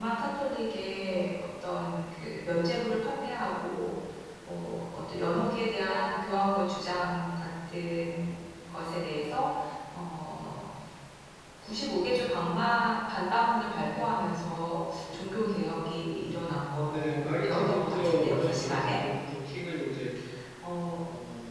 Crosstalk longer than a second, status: present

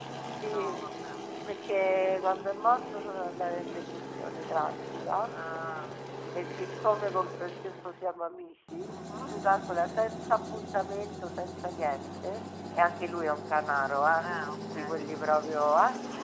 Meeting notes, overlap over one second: none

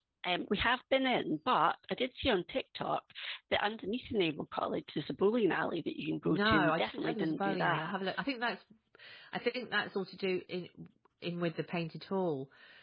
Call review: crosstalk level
present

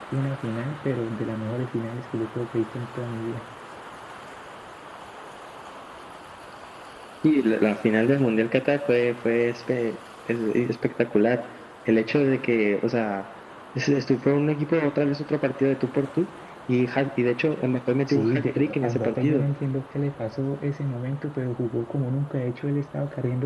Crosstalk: present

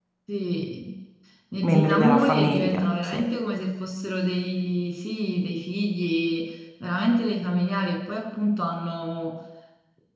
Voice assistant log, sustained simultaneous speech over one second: present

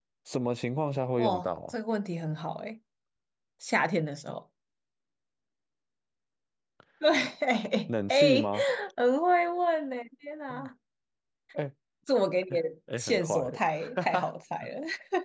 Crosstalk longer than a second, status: present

